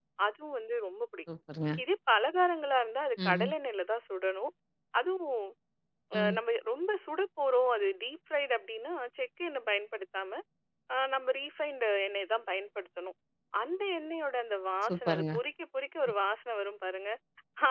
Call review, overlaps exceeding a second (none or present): none